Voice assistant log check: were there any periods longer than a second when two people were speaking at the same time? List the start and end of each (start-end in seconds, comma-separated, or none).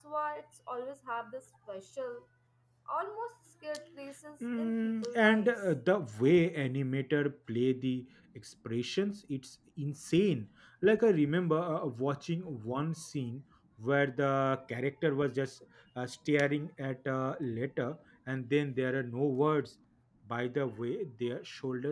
4.4-5.7